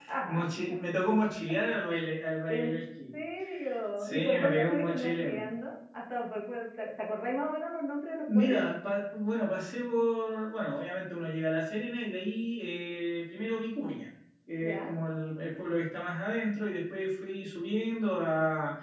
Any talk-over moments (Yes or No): Yes